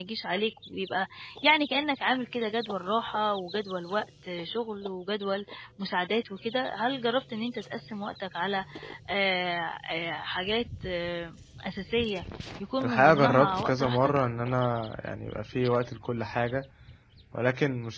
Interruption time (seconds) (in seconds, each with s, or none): 12.8 s